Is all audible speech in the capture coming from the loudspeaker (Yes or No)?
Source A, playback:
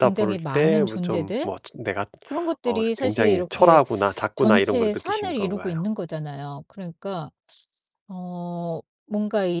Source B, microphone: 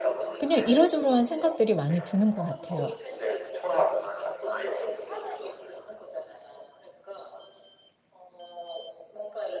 No